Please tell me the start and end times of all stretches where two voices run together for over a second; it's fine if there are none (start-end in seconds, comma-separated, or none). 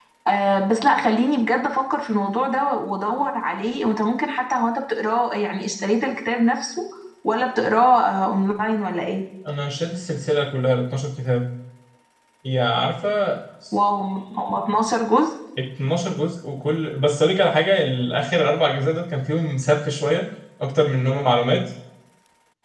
none